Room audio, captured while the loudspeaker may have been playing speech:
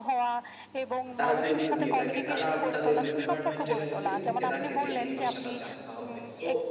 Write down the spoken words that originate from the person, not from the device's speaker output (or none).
তারা গুরুত্ব দিয়ে থাকে। তারা তাদের রিকোয়ারমেন্ট এর মধ্যে লিখে রাখে যে এই ভাষাটা জানতে হবে। সো,